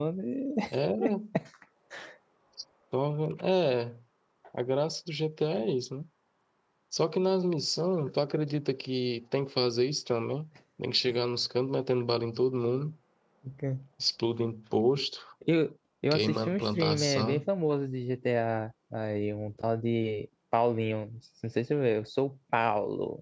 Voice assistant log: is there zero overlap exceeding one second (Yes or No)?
No